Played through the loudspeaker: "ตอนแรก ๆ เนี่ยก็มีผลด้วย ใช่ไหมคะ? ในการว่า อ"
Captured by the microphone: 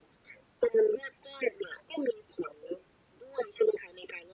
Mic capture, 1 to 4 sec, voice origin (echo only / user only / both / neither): echo only